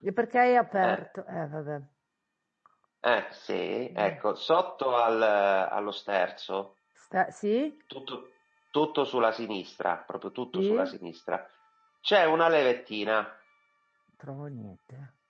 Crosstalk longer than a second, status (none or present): none